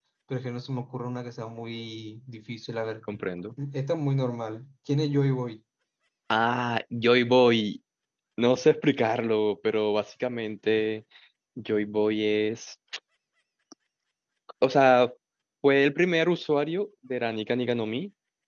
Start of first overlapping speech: none

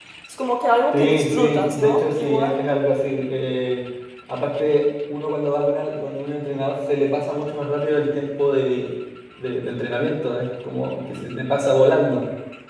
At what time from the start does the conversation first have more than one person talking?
1 s

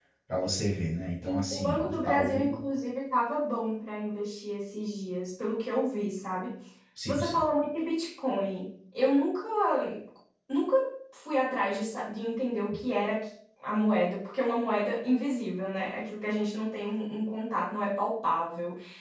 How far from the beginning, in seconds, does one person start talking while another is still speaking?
1 s

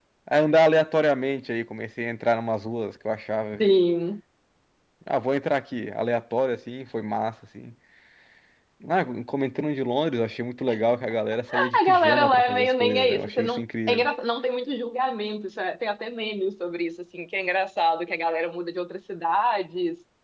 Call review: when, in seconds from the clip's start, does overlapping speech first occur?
11 s

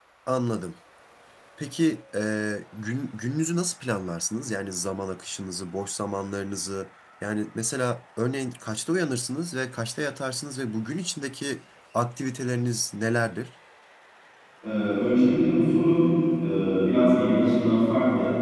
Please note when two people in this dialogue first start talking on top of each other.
none

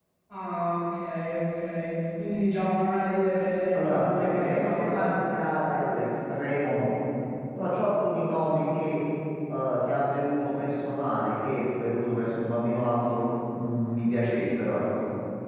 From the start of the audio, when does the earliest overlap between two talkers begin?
4 s

